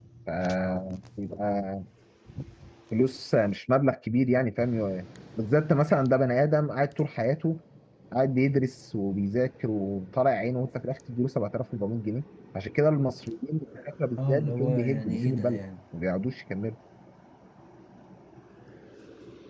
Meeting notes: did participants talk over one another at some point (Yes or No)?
Yes